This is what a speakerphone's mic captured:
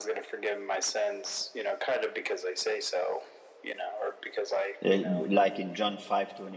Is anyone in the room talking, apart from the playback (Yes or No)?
Yes